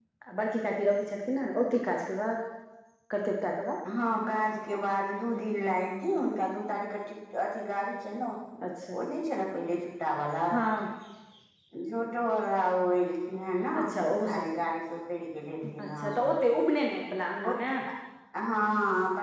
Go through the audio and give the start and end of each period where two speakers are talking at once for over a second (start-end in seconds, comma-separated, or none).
none